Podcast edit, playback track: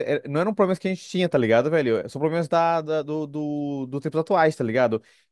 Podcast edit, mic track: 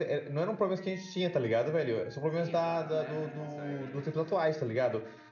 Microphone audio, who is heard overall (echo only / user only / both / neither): both